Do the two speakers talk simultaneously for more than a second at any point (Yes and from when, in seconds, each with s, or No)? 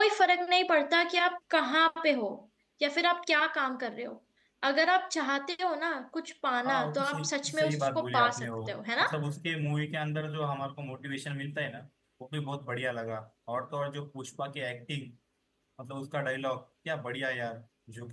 Yes, from 6.6 s